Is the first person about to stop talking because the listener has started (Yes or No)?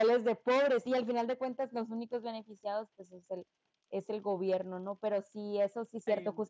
No